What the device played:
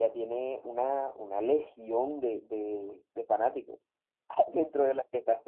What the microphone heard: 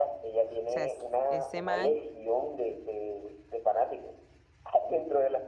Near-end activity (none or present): present